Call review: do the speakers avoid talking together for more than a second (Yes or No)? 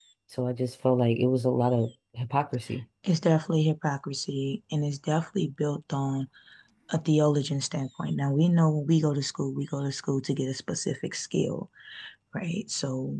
Yes